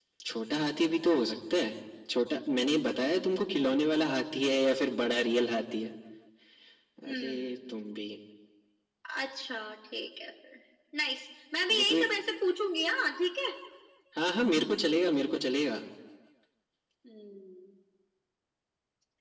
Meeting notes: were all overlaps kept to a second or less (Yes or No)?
Yes